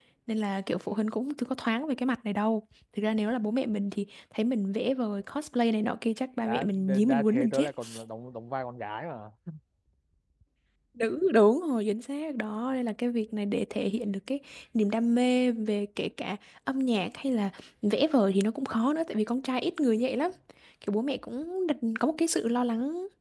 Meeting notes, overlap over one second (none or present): present